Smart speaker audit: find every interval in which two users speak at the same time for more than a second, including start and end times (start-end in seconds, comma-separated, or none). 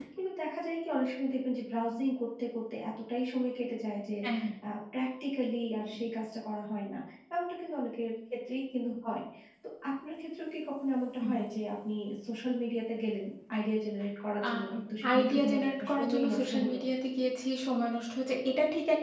15.1-16.8